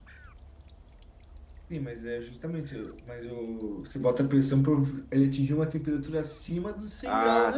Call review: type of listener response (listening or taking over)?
taking over